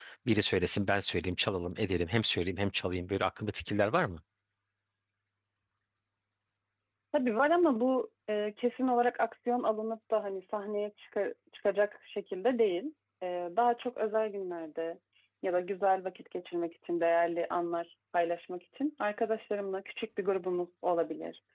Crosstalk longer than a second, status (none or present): none